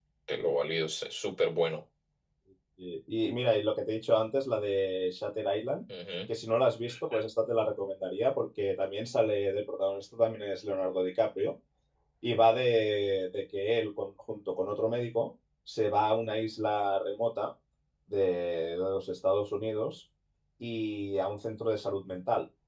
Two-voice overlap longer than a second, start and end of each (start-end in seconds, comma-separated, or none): none